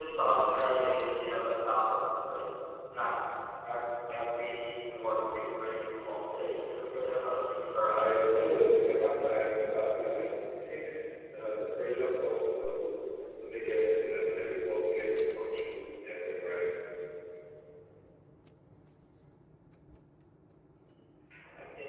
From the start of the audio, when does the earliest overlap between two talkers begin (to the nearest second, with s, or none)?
8 s